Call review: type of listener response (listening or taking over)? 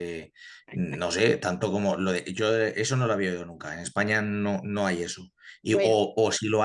listening